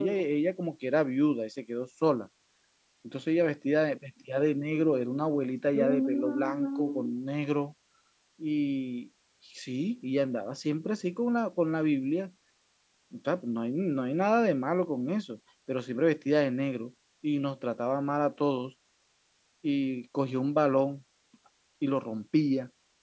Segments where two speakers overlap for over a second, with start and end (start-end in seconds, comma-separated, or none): 5.7-7.1